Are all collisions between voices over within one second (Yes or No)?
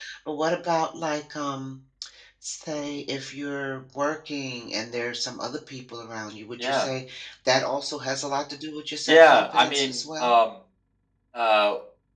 No